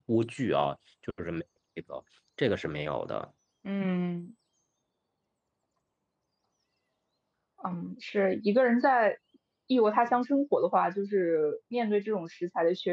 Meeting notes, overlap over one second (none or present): none